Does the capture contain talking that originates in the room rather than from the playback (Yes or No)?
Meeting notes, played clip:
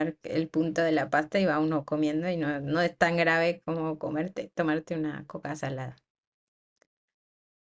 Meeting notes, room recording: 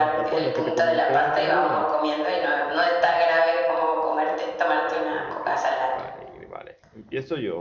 Yes